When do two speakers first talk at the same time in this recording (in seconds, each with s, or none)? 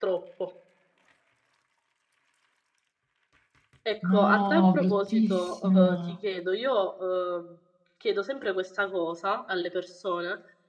4.0 s